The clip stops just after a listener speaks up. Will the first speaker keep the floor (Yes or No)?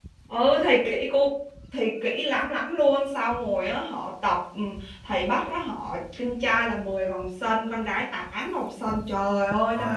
Yes